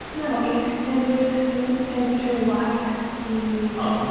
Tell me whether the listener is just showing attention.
Yes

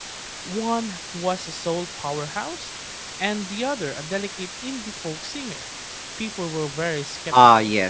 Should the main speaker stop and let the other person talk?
Yes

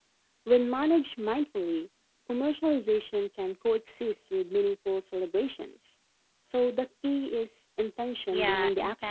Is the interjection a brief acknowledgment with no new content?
No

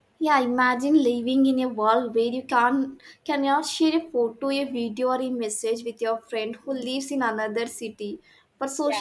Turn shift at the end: No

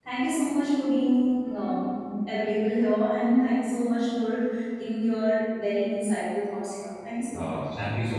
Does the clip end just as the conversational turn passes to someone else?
Yes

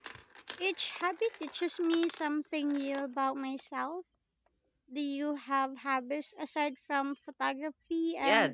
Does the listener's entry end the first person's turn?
Yes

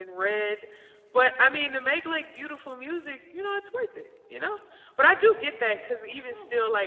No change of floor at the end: Yes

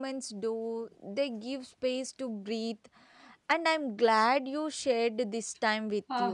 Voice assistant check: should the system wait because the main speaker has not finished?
No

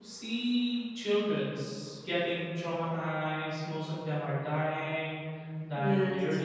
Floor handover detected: No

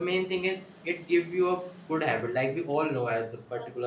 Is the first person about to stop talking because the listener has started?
No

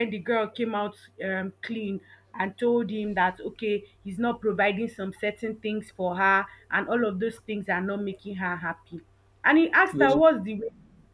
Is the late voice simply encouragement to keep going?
Yes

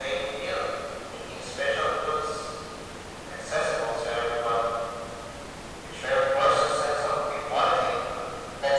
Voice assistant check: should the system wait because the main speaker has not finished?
No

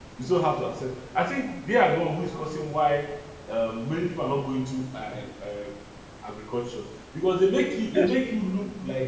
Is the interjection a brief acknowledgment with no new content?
Yes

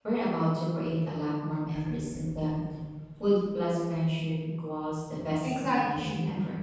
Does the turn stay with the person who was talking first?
No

